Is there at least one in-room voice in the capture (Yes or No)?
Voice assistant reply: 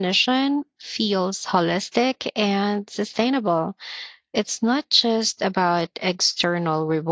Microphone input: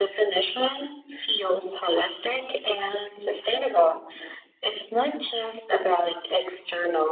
No